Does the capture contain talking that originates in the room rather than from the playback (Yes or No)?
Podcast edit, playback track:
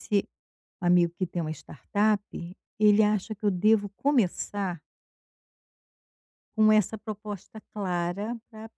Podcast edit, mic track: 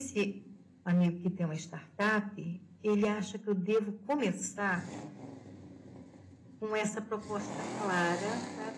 No